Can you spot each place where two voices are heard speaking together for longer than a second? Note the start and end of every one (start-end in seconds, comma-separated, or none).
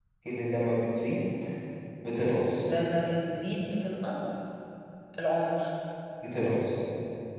none